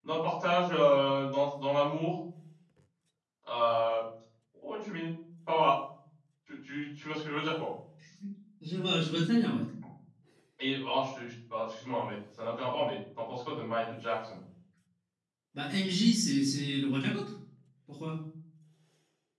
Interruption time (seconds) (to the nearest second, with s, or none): none